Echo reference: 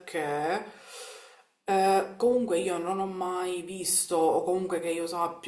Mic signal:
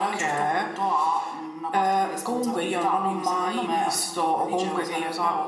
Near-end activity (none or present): present